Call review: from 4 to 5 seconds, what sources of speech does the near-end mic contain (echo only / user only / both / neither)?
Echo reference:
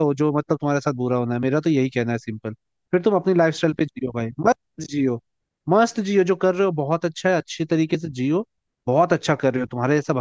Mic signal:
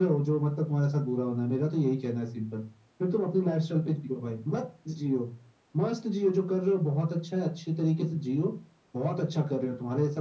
echo only